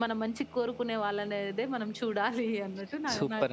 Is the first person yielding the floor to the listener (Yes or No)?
Yes